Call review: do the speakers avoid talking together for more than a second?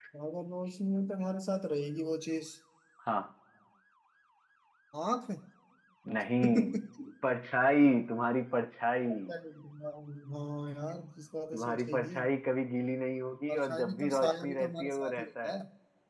No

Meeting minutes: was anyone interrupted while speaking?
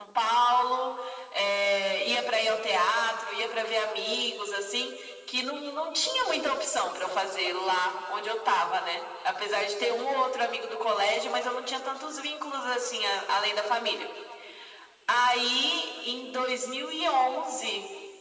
No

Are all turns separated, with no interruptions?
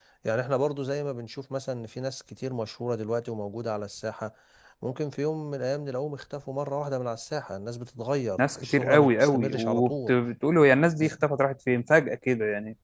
No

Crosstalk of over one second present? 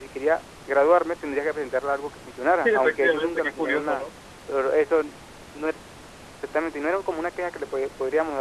Yes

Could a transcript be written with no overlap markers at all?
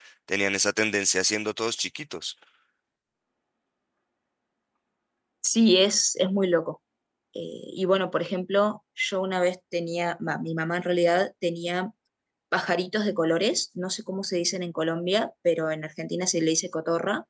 Yes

